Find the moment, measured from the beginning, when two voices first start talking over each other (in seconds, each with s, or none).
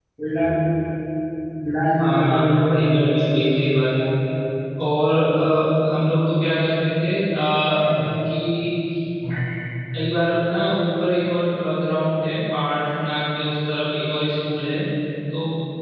2.0 s